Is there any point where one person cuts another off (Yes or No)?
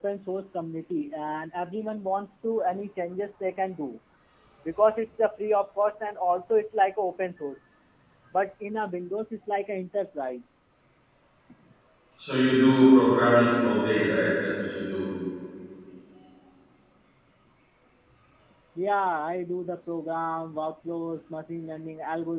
No